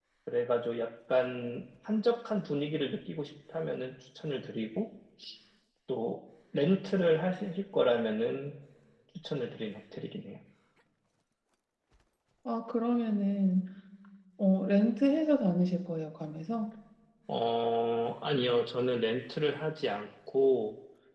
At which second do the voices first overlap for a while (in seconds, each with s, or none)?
none